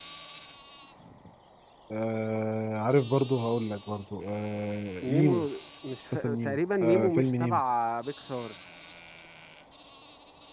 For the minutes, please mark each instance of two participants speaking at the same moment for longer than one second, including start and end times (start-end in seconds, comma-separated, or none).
6.1-7.6